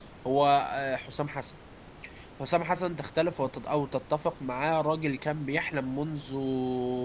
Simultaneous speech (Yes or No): No